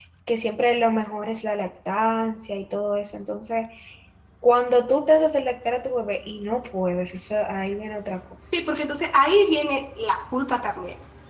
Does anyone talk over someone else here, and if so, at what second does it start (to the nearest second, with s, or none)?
none